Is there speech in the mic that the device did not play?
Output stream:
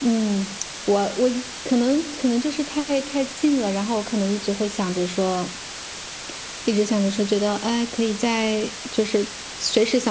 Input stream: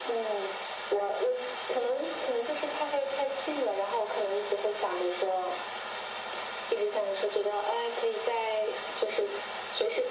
No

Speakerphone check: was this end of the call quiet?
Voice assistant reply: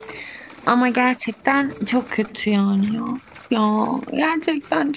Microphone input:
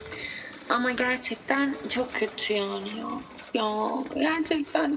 Yes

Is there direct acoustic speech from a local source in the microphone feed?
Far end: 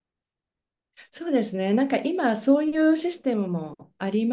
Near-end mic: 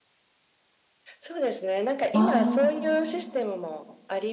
Yes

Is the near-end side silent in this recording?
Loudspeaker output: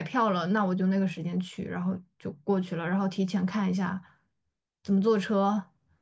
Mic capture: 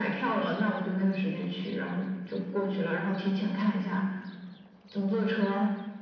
Yes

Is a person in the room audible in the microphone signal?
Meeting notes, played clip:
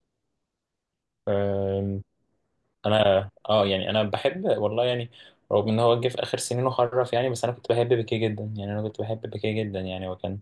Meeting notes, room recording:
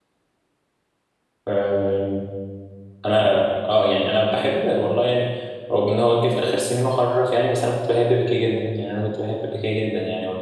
No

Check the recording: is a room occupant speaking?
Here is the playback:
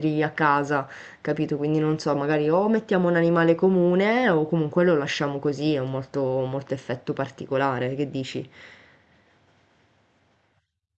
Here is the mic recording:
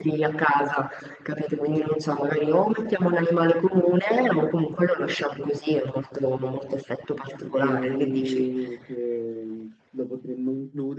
Yes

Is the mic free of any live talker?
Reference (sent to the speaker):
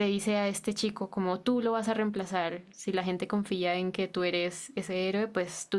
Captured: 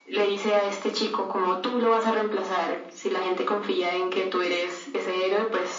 Yes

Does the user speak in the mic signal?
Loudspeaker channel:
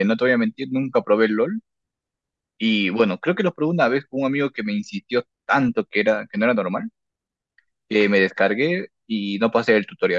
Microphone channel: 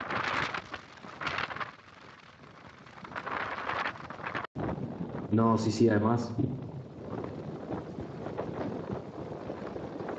Yes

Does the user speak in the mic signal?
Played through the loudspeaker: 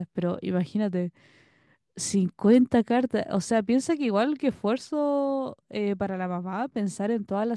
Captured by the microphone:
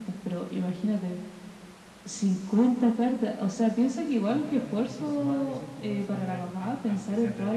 Yes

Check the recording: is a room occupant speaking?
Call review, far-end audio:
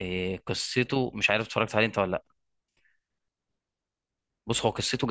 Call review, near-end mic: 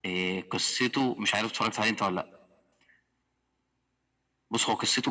No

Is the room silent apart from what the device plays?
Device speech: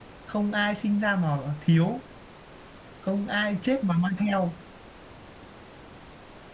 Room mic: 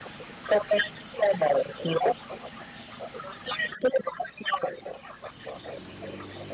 Yes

